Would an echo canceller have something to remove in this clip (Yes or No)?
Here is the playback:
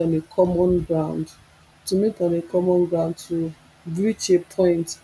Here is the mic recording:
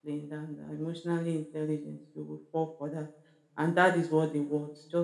No